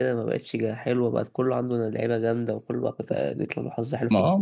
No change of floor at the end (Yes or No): No